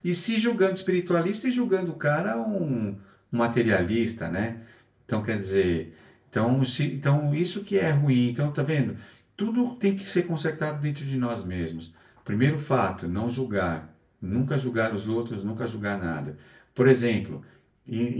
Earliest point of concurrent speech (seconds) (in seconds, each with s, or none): none